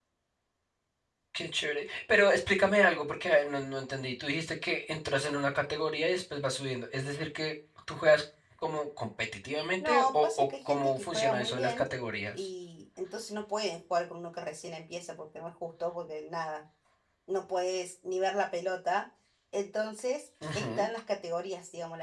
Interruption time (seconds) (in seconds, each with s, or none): 9.8 s